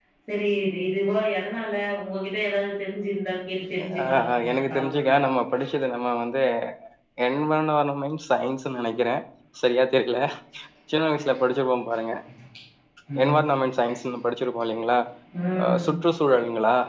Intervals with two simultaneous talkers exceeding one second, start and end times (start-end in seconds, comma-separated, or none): 3.8-5.1